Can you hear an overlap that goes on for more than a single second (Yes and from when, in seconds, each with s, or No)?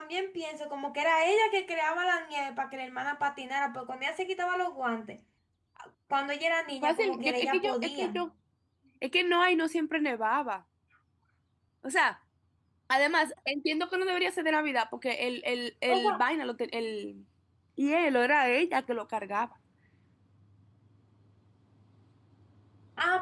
Yes, from 6.8 s